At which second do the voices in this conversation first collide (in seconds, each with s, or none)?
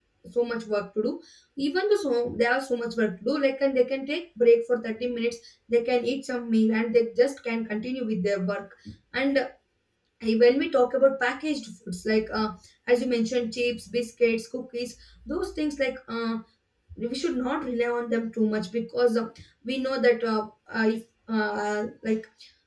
none